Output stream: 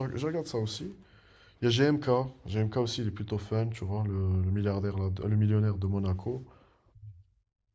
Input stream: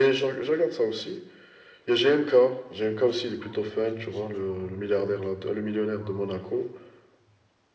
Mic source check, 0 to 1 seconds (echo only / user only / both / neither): echo only